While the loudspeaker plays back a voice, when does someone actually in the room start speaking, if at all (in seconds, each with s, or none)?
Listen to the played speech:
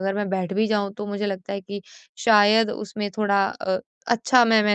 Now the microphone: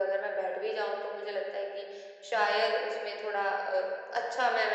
none